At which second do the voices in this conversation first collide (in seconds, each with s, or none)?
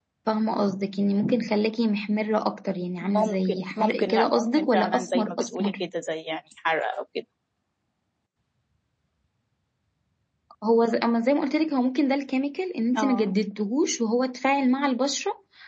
3.2 s